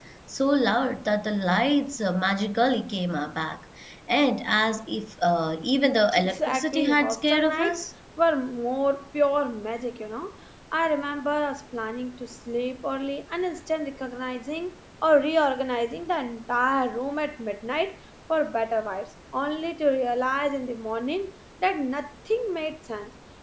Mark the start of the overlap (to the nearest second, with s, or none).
6 s